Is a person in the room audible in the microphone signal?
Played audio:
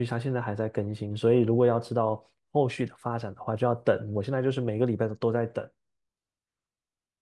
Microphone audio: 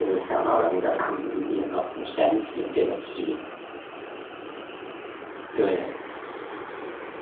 Yes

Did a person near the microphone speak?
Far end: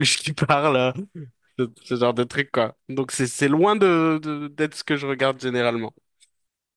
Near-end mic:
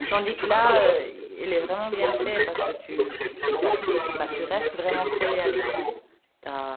Yes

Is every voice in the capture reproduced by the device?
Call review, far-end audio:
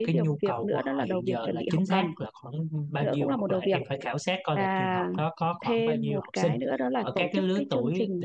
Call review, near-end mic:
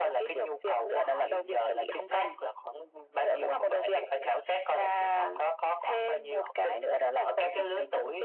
Yes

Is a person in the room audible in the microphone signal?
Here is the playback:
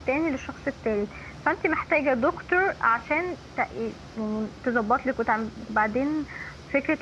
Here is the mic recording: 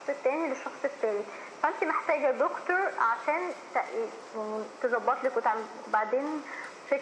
No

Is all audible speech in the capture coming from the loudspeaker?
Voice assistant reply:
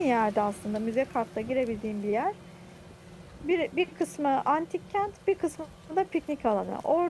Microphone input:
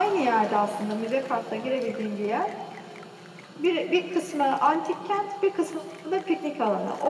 Yes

